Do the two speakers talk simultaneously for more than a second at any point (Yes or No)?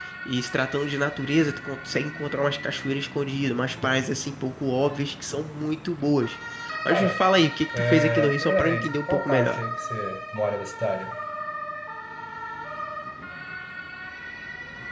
Yes